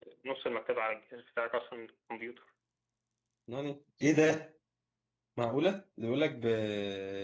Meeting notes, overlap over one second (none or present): none